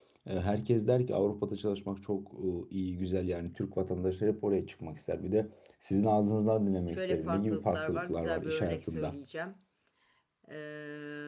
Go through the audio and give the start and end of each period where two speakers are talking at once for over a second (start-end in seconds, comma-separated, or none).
6.9-9.2